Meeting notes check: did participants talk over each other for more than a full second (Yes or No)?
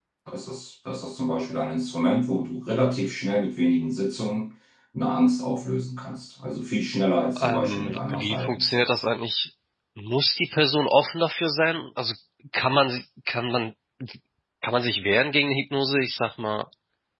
Yes